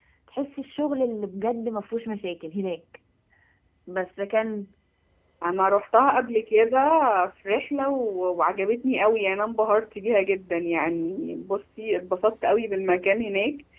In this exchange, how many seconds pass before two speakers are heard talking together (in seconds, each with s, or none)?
none